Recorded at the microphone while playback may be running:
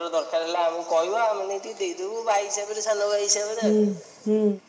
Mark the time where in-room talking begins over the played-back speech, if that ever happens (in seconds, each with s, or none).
3.6 s